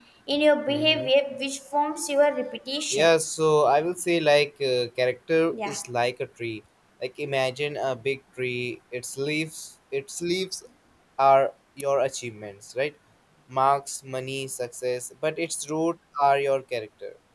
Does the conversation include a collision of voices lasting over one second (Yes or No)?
No